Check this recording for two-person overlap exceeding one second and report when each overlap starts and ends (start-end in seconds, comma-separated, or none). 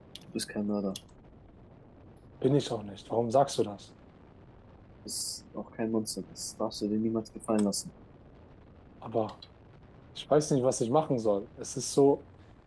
none